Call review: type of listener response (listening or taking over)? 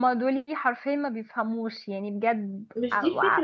taking over